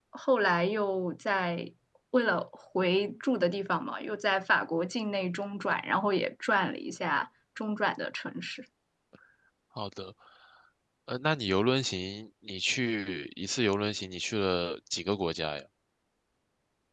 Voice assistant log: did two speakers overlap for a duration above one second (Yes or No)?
No